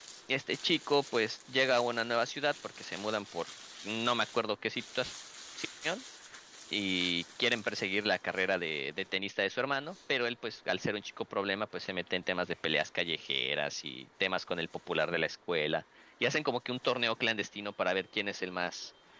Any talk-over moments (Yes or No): No